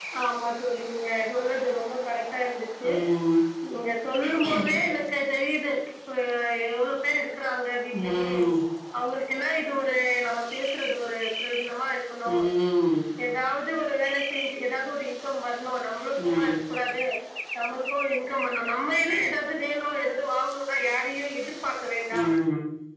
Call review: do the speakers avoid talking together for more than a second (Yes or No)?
Yes